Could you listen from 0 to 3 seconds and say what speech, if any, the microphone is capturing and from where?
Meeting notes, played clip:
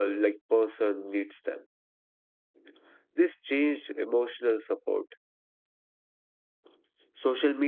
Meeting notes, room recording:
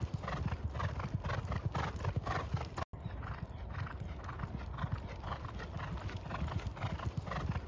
neither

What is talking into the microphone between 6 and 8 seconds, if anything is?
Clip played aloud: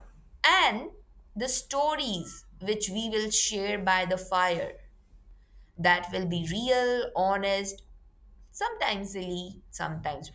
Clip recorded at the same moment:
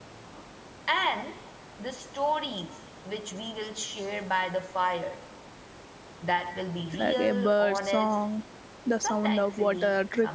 both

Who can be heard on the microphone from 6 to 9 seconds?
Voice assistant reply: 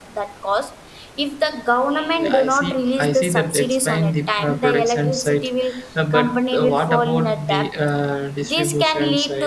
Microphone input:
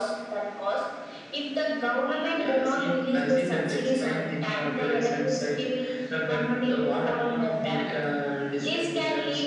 echo only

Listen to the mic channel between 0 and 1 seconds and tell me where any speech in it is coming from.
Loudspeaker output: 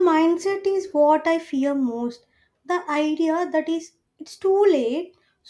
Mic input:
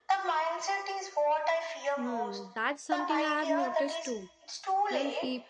echo only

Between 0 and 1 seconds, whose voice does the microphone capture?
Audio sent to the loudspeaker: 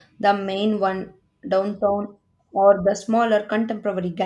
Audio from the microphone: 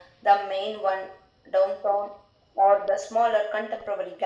echo only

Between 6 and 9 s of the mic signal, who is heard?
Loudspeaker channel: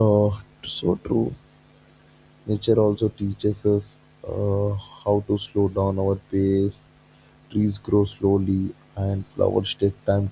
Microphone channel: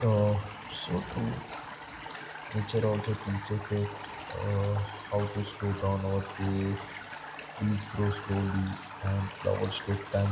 echo only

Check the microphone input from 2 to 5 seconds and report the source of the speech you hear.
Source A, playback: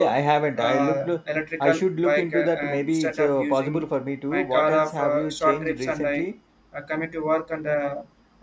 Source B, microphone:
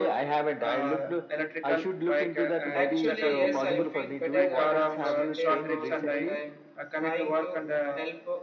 both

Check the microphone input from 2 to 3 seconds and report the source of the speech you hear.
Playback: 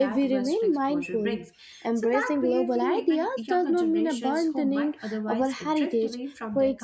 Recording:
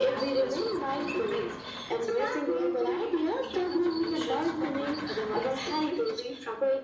echo only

